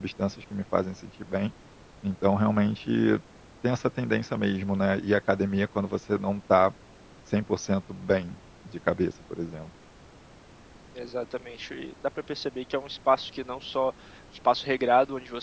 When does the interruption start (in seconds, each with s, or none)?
none